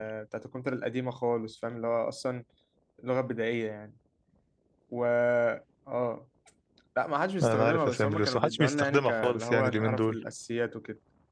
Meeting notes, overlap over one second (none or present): present